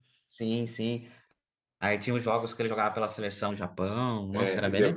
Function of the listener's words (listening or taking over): taking over